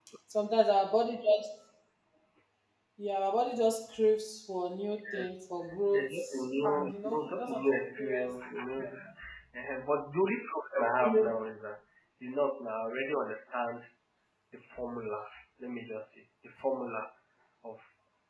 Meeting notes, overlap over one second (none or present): present